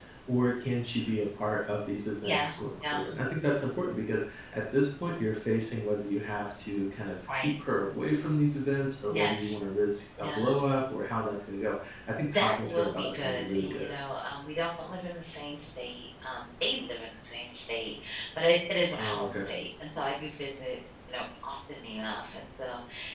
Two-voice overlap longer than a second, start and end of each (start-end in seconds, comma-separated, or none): 12.3-13.9